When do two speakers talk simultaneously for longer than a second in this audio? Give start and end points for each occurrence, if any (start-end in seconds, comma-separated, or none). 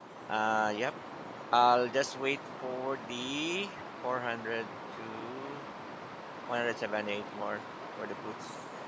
none